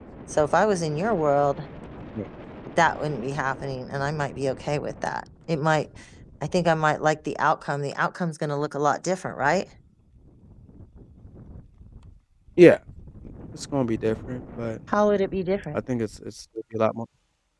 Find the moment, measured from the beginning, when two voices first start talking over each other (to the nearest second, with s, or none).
none